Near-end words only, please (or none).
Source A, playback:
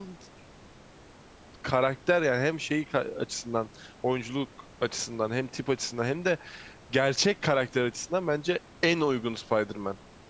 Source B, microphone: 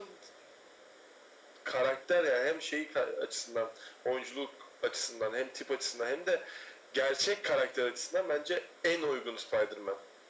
none